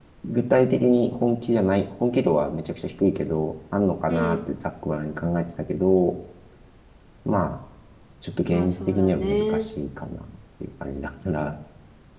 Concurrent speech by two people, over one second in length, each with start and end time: 8.4-9.7

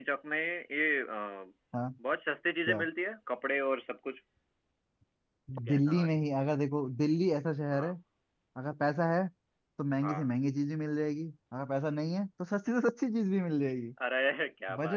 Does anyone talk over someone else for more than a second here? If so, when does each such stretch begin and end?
none

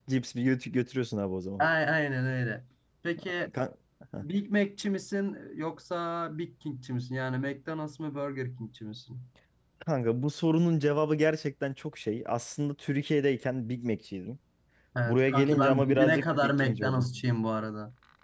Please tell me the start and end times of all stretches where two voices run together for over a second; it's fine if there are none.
15.1-17.1

